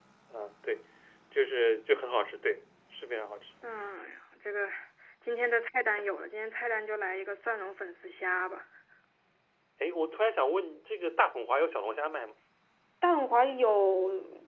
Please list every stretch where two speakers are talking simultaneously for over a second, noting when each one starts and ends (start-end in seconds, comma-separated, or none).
none